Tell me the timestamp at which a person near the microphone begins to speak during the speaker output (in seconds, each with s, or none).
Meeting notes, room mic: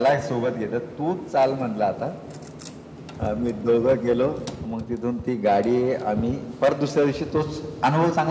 none